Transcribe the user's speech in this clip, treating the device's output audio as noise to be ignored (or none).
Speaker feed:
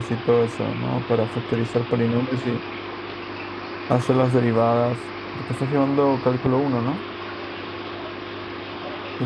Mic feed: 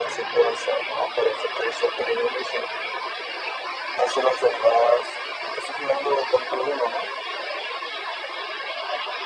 none